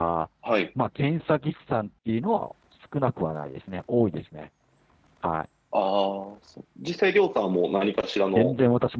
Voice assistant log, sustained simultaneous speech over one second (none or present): none